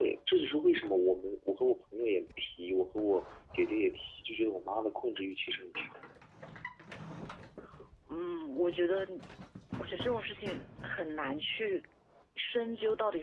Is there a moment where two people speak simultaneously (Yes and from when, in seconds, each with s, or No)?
No